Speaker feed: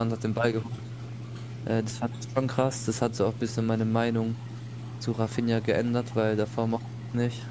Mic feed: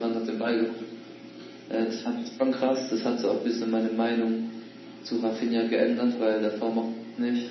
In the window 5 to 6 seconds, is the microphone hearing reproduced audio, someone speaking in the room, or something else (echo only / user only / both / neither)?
echo only